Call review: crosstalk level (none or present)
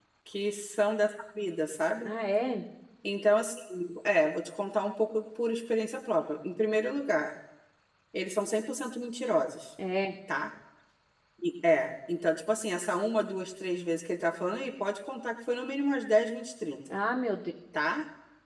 none